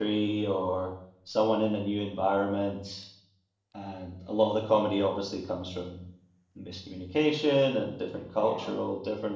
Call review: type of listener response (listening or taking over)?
listening